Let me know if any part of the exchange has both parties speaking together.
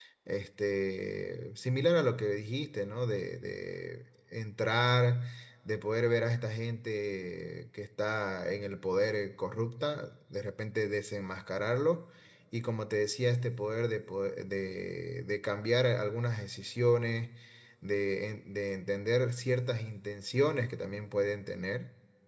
No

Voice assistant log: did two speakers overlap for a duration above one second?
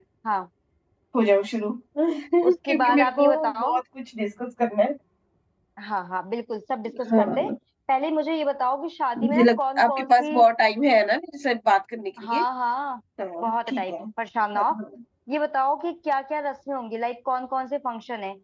Yes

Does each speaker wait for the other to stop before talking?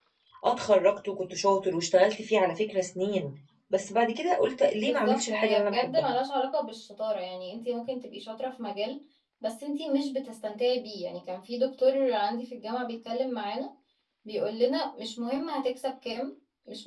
No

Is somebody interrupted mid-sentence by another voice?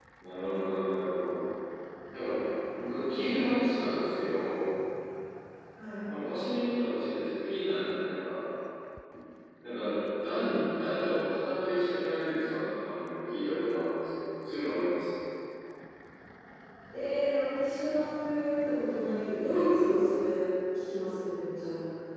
No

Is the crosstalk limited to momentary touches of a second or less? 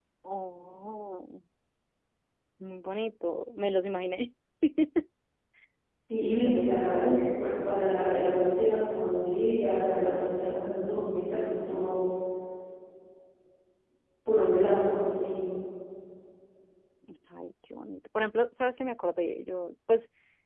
No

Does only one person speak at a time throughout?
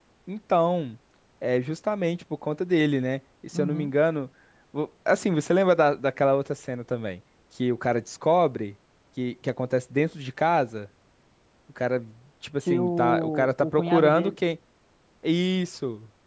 No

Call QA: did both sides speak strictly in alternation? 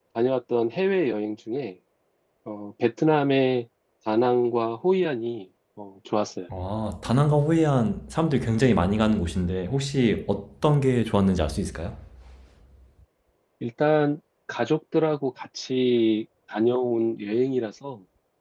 Yes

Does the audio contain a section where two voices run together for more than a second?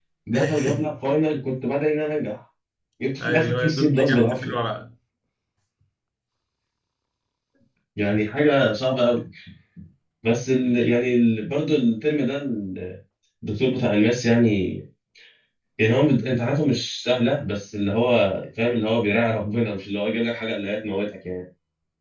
Yes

